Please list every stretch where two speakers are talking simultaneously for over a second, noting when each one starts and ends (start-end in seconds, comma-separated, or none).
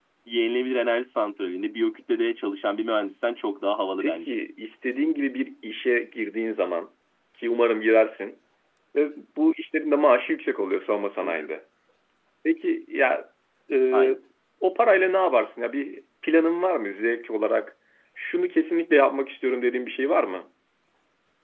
none